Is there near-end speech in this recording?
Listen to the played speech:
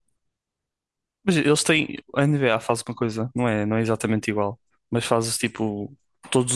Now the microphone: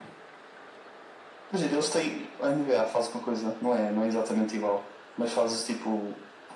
No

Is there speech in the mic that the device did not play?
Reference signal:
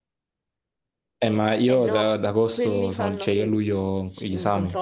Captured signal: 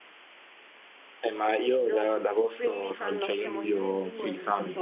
Yes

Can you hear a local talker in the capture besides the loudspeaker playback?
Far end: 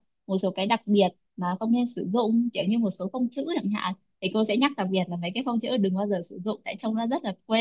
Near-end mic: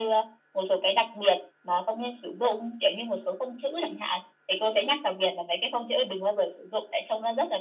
No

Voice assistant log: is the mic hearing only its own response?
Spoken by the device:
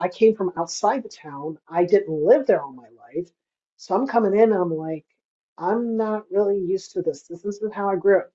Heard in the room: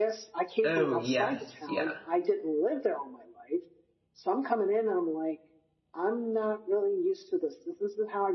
No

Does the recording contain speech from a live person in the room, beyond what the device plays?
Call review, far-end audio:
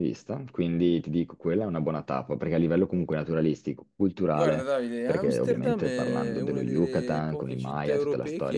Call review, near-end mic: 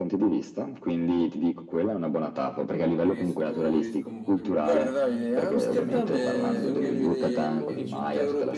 Yes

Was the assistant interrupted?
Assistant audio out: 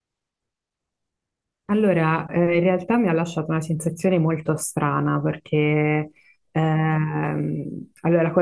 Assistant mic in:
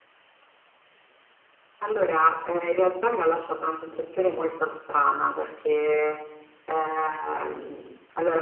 No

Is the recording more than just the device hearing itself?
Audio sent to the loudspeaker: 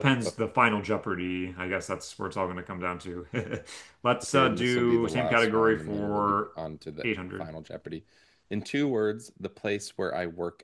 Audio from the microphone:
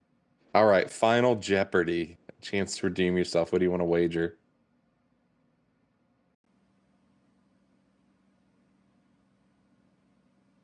Yes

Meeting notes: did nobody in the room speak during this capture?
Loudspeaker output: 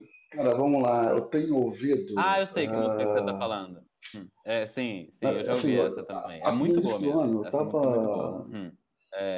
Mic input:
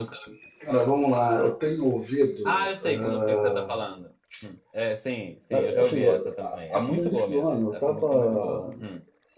Yes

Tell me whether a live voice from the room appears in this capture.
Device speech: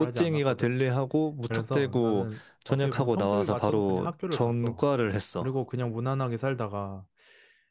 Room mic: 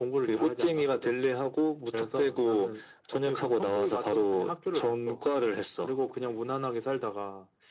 No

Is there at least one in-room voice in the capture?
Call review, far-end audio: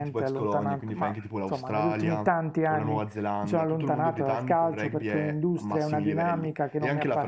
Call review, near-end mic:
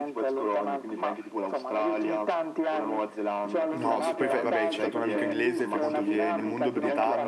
Yes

